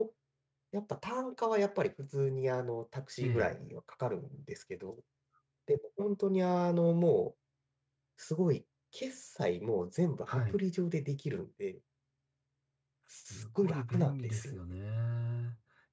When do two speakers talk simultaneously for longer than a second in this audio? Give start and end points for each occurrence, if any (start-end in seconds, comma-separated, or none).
13.3-14.5